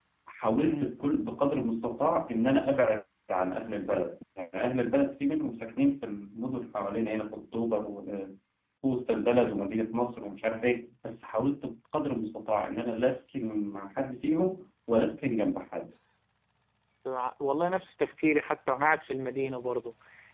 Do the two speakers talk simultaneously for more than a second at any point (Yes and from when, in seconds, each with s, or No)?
No